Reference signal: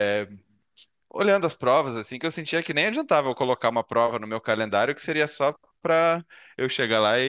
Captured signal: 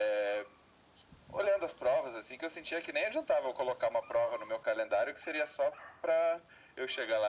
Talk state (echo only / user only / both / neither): echo only